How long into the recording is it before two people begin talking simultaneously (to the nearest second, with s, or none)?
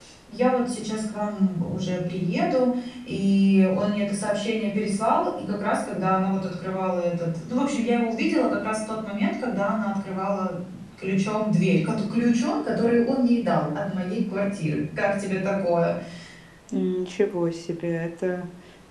none